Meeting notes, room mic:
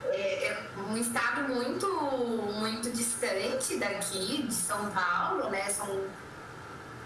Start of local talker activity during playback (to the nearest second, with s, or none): none